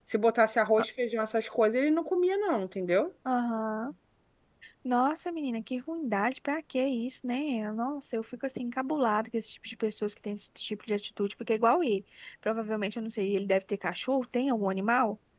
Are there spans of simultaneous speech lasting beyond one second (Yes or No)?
No